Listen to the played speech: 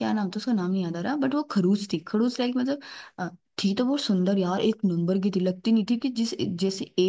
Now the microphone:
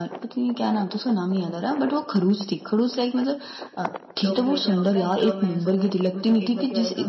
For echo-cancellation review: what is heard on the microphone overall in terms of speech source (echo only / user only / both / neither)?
both